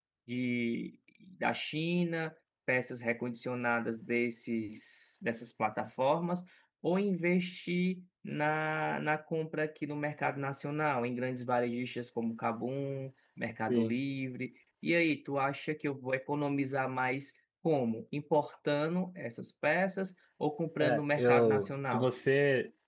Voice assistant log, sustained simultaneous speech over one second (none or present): present